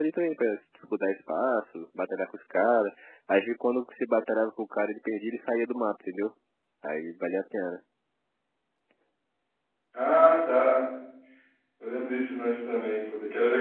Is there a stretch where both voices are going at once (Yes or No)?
No